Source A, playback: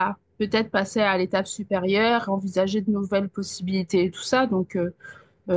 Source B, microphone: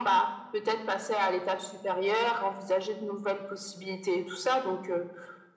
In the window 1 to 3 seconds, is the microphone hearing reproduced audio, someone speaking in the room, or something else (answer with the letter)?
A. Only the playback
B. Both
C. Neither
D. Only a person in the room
A